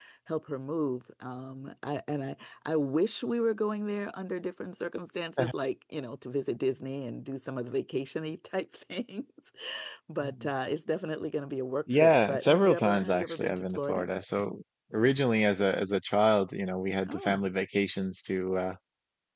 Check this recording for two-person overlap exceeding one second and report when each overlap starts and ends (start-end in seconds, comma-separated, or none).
11.9-14.1